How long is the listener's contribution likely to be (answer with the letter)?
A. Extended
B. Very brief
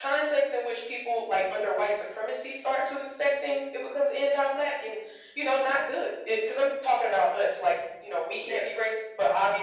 B